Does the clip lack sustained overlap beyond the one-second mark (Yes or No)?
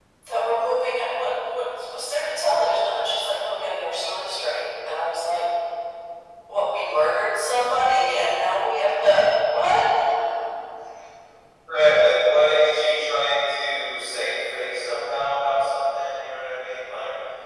Yes